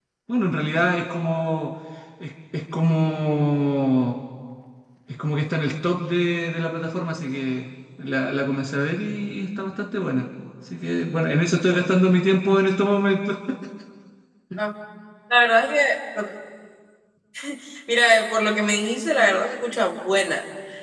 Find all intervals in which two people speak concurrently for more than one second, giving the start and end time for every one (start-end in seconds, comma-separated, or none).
none